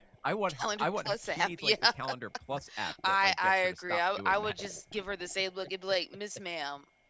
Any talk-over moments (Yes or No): Yes